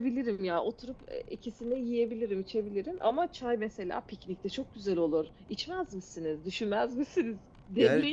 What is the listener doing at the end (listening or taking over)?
taking over